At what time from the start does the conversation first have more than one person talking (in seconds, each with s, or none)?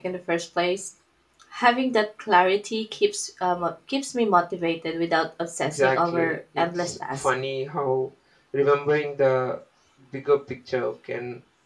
5.6 s